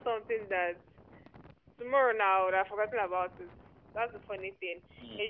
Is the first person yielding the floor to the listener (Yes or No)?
No